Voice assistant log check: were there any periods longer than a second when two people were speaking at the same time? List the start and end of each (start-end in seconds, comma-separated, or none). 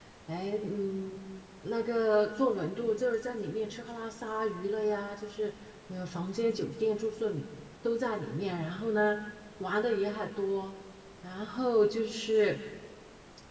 none